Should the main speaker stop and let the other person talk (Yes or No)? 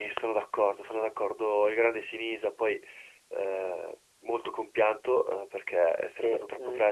No